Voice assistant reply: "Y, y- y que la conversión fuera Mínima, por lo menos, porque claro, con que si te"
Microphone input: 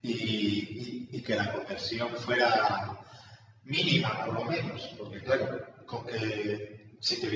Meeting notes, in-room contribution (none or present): none